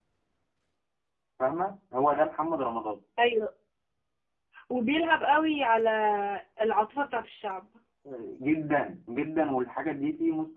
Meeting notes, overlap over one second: none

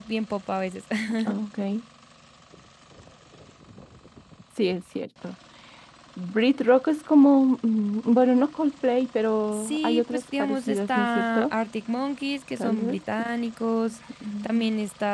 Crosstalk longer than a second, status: present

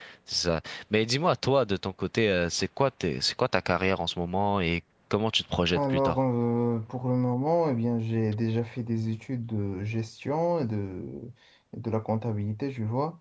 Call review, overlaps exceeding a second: none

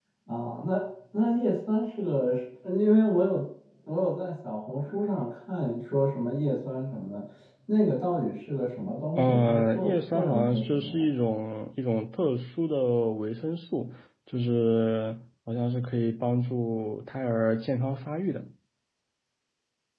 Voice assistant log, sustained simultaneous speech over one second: present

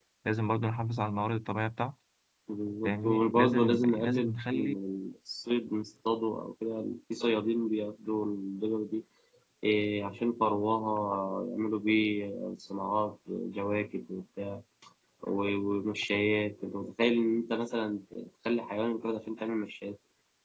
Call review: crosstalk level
present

